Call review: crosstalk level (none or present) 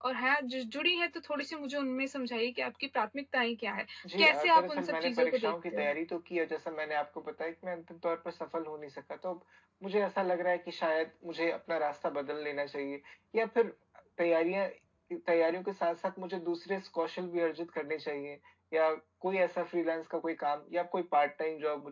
present